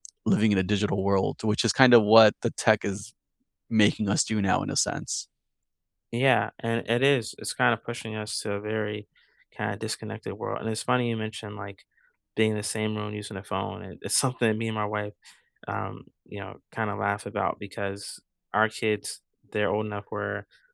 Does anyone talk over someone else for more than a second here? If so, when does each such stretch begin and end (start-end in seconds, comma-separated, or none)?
none